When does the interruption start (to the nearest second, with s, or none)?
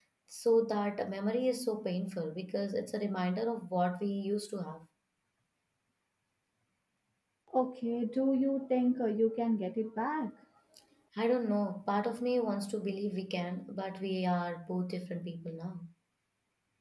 none